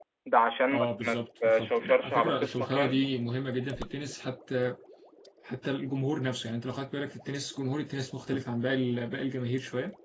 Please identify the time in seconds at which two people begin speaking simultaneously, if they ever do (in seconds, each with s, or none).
0.7 s